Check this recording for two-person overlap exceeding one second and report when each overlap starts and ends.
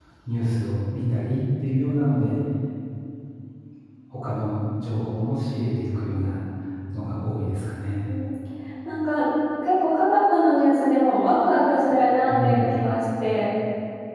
none

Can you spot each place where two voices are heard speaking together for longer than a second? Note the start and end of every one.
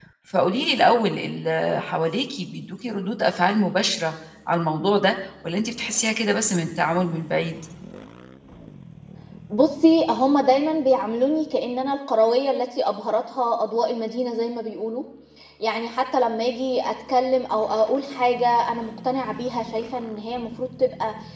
none

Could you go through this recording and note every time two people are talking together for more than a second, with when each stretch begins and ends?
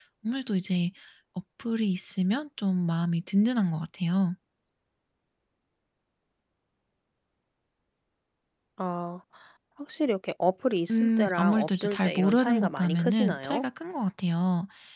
10.9-13.6

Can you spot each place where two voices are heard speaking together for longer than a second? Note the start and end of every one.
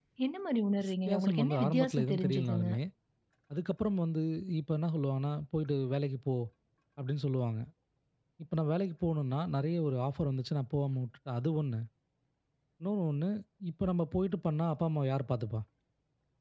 0.8-2.7

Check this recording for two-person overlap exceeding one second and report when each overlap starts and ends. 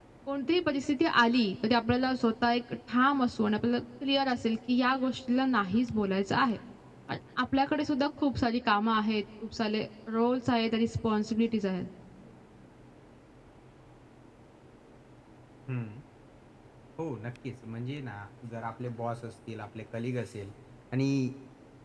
none

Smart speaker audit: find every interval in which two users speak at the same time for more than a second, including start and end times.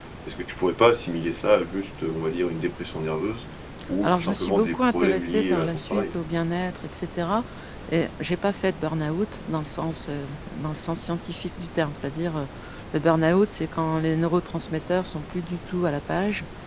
4.0-6.2

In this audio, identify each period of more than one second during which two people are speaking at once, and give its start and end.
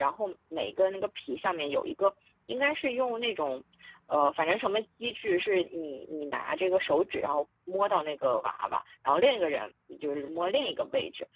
none

